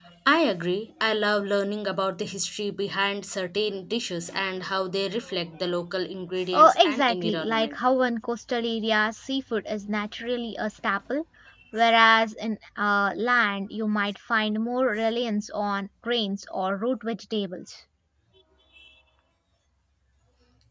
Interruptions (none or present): present